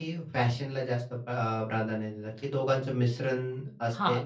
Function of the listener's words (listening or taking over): taking over